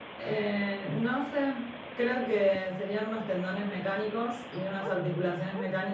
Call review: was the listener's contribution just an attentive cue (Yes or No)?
Yes